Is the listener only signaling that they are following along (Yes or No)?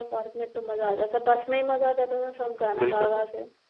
No